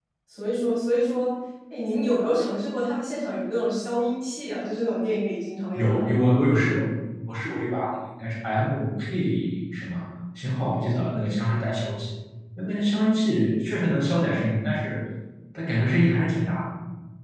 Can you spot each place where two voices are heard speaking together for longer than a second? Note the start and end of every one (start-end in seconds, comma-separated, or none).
none